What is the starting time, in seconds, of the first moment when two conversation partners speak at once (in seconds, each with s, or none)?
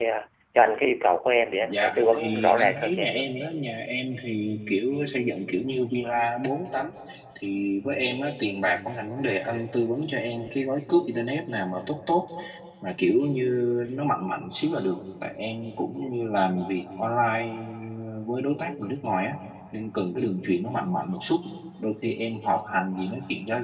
1.6 s